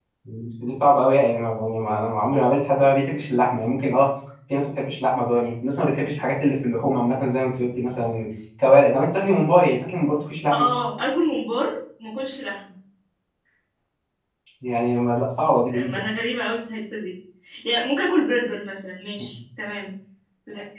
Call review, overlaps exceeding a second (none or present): none